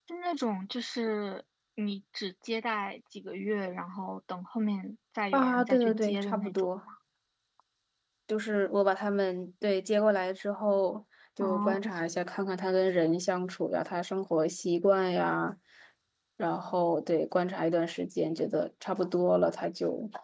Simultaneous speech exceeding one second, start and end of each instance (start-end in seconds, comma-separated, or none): 5.3-6.7